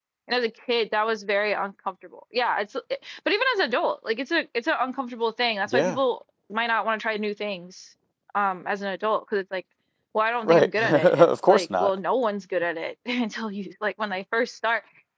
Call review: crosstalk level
present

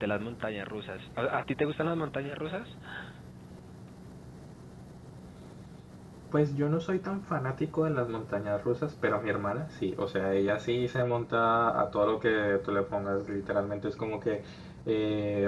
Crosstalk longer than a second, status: none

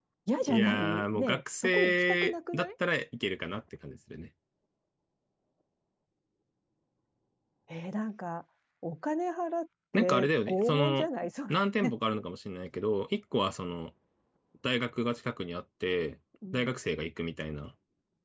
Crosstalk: present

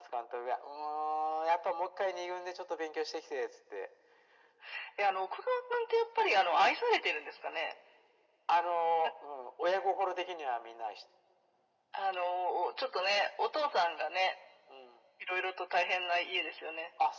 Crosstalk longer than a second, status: none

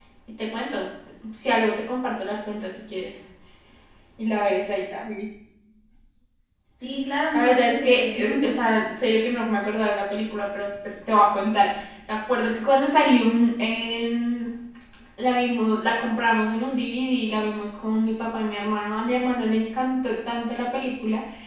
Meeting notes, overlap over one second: present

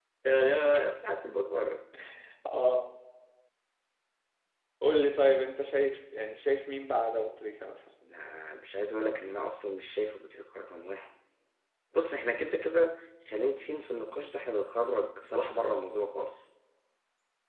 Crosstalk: none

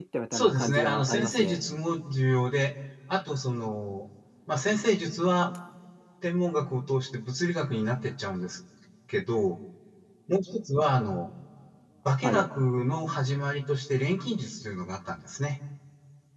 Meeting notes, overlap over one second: present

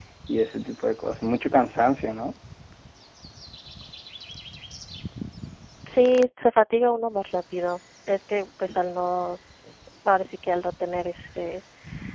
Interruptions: none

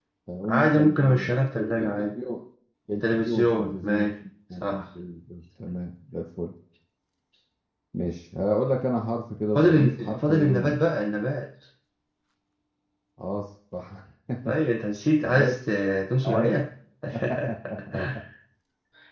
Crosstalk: present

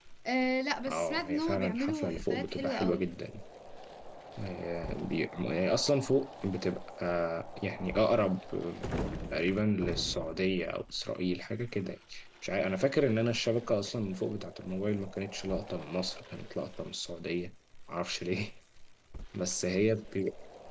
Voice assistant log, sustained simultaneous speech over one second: present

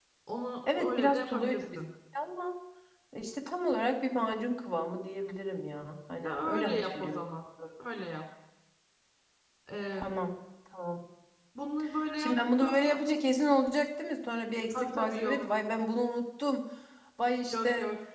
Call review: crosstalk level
present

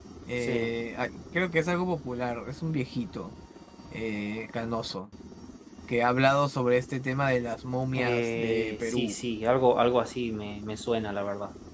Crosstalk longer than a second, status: present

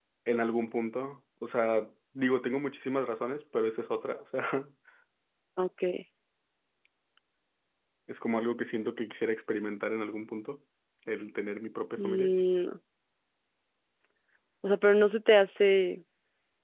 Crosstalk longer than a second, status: none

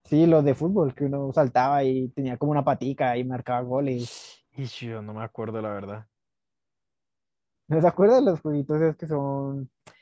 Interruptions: none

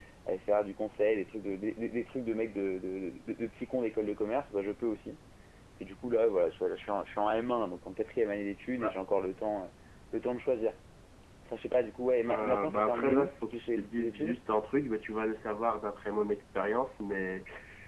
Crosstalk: present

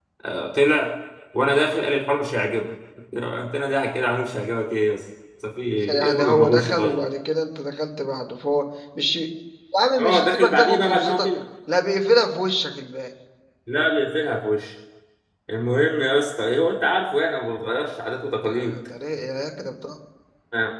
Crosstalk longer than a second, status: present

